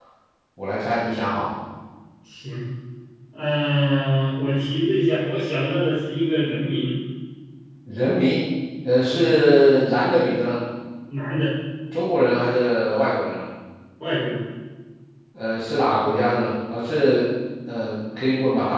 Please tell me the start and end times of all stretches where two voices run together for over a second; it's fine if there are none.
none

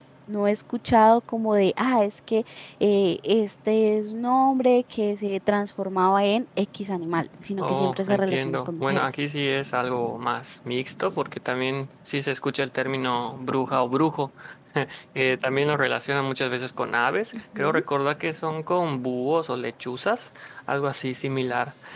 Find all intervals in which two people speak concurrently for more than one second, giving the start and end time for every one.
7.6-9.1

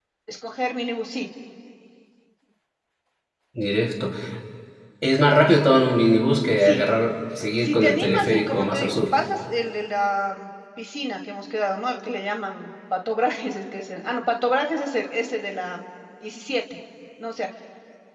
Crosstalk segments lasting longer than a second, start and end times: 7.6-9.1

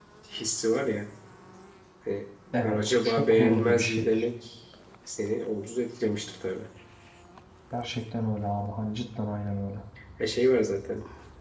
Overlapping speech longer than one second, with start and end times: 2.6-4.0

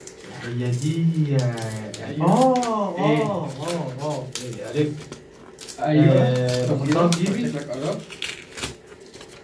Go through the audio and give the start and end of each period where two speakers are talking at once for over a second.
5.9-7.5

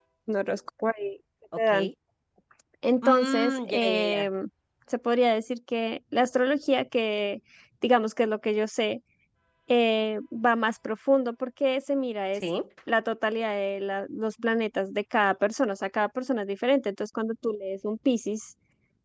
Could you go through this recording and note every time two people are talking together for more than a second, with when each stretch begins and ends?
3.0-4.2

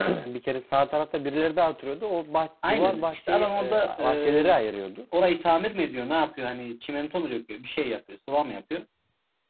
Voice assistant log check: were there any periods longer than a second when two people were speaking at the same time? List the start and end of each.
2.7-4.5

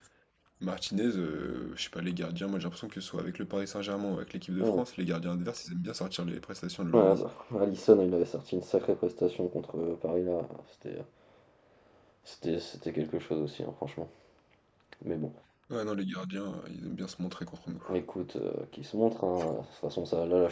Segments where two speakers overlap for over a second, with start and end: none

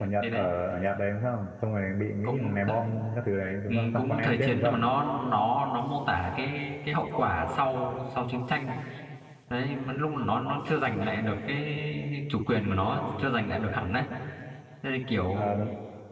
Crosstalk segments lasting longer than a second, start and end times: 3.7-4.9

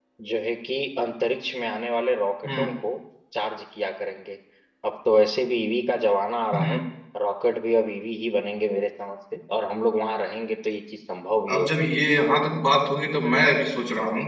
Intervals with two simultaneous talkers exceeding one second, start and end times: none

